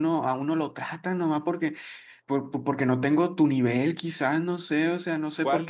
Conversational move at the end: taking over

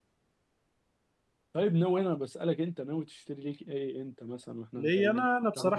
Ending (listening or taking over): taking over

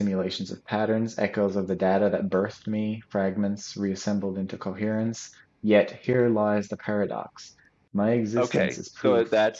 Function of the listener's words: taking over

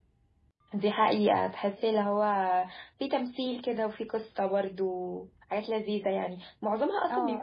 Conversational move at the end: listening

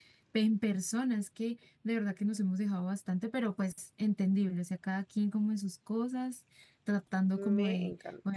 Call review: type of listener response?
listening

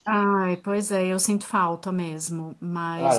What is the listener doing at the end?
listening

